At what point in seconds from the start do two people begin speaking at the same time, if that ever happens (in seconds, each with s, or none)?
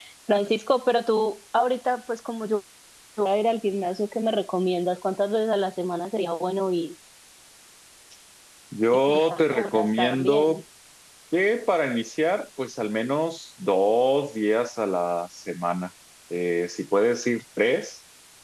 9.1 s